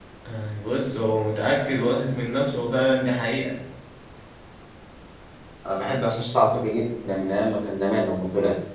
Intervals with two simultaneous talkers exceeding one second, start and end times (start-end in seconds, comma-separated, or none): none